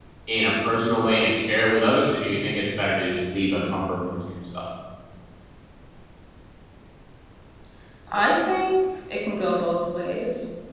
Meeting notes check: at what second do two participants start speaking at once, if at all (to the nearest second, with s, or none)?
none